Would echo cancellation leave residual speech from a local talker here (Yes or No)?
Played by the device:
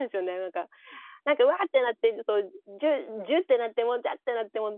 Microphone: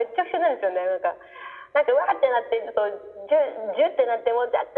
No